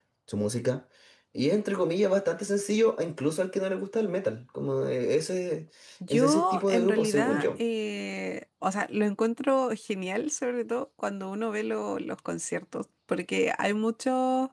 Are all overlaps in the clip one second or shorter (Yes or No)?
No